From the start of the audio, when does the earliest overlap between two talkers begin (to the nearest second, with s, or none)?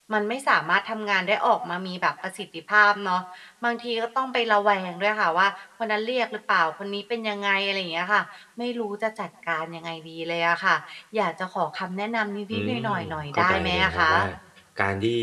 13 s